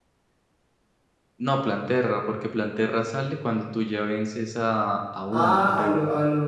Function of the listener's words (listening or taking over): taking over